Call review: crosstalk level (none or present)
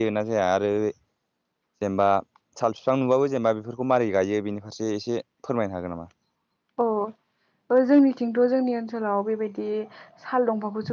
none